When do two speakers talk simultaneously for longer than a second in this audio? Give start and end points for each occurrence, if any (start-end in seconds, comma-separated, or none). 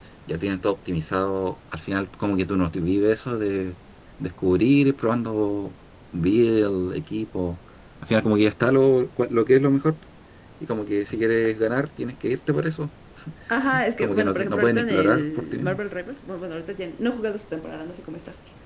14.0-15.8